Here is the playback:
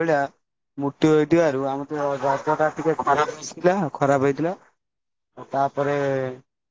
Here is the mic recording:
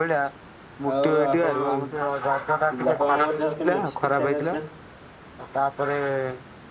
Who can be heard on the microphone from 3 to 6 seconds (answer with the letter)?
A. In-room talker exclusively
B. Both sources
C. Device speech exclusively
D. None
B